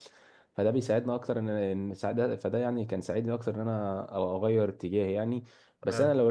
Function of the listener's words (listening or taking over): listening